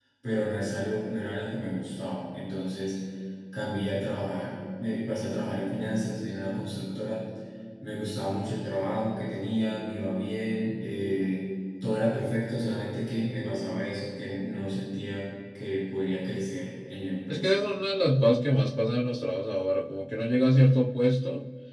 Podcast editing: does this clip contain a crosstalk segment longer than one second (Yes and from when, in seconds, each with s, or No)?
No